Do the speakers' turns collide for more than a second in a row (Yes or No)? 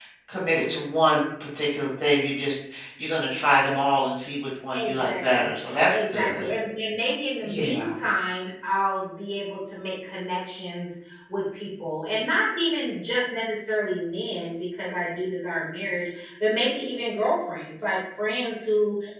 Yes